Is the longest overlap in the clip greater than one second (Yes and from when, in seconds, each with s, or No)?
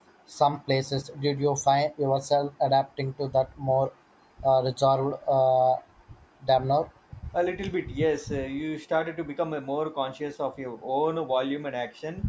No